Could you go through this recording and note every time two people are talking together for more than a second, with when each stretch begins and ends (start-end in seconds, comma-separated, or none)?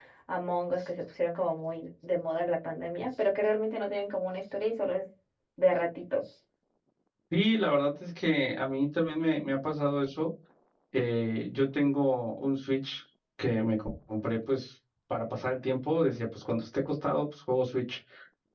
none